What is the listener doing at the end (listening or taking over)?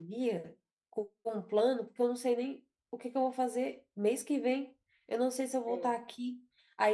listening